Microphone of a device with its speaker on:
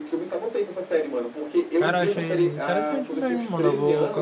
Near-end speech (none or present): present